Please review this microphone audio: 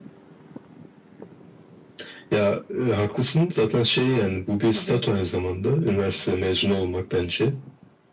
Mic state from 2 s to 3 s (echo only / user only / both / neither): echo only